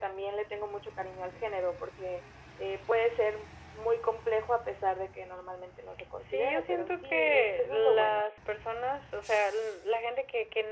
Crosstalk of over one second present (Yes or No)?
Yes